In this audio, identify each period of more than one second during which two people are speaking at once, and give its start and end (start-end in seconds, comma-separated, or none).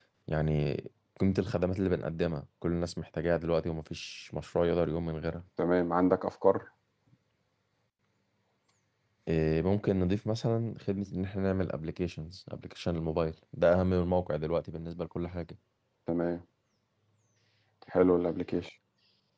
none